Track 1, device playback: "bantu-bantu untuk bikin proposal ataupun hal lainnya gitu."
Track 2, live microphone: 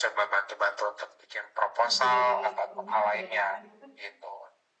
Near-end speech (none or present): present